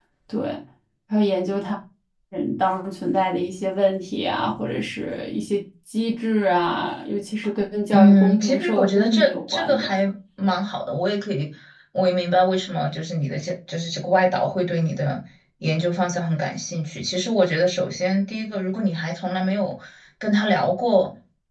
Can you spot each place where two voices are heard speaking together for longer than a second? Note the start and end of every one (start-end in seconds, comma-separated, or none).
7.9-9.9